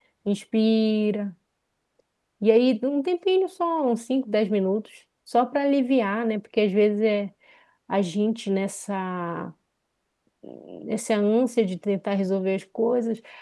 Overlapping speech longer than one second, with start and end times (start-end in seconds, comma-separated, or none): none